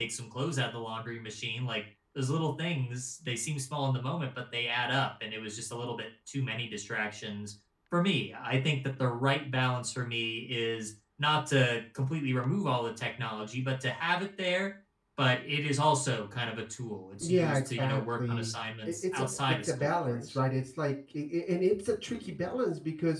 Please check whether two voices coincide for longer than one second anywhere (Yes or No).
Yes